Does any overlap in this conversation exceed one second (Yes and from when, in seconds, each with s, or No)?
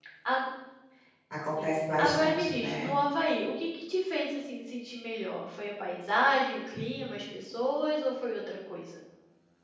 Yes, from 1.5 s